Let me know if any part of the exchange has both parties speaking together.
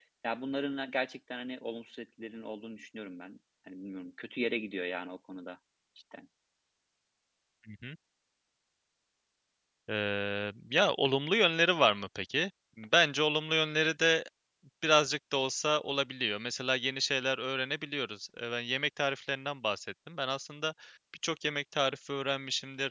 No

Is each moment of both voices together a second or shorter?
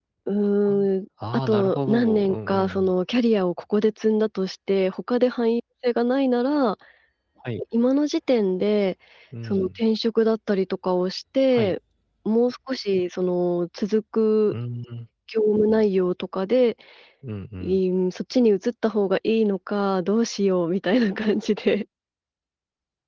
No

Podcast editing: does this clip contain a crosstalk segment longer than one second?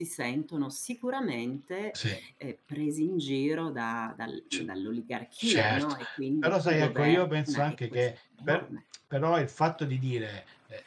Yes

